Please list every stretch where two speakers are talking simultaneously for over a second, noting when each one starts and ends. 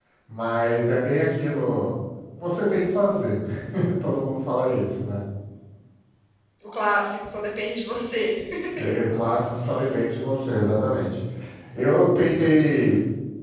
none

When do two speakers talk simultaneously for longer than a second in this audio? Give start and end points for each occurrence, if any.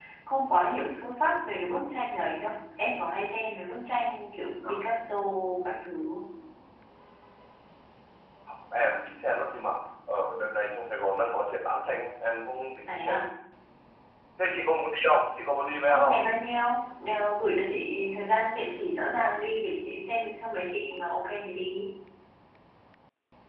none

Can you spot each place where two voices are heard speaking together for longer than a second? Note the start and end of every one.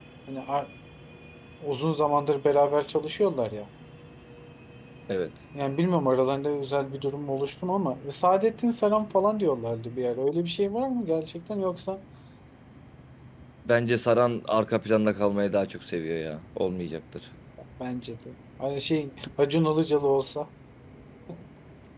none

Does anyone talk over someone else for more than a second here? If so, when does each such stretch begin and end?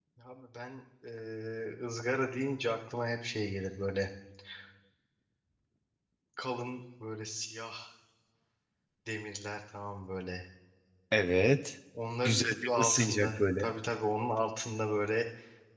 12.2-13.7

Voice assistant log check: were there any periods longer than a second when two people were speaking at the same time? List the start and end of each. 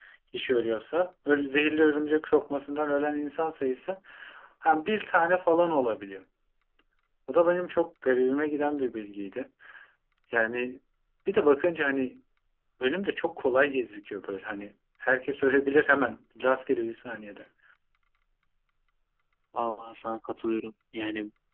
none

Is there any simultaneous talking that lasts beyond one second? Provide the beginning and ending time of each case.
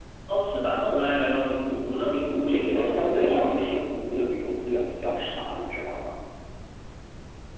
2.4-3.8

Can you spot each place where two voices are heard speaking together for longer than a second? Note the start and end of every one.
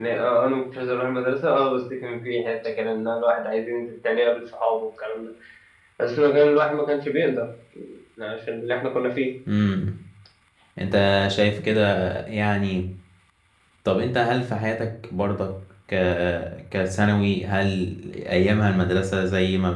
none

